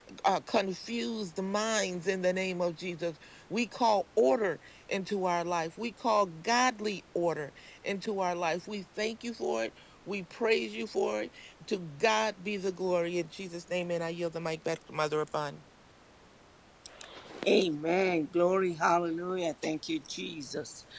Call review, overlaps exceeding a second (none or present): none